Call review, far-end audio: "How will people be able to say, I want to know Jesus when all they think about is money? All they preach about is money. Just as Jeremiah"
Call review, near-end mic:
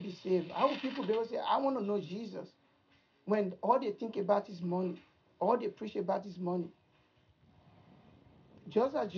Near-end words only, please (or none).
none